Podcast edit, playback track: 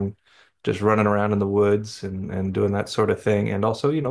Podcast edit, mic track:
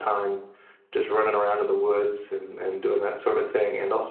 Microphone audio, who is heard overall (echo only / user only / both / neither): echo only